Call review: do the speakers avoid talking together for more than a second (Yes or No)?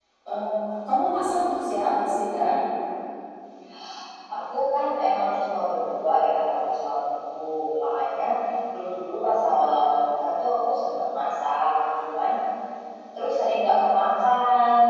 Yes